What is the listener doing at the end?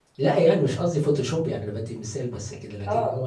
taking over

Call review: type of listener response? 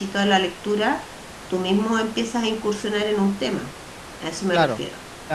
taking over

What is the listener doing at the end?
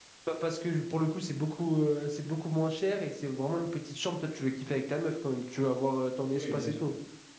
taking over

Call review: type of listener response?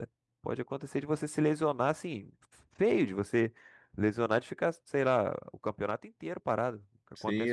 taking over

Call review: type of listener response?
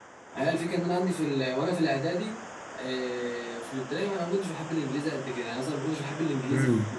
taking over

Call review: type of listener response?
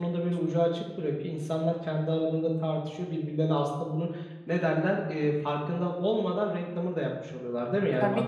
taking over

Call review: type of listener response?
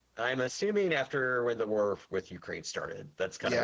taking over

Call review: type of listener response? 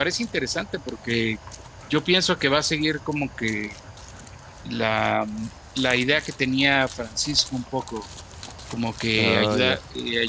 listening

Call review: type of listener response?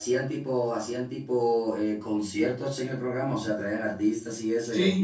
taking over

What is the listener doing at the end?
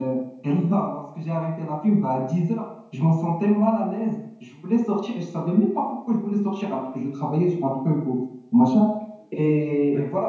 listening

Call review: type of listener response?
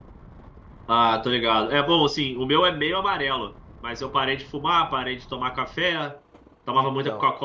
listening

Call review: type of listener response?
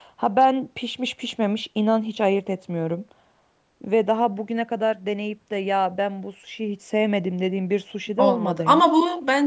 taking over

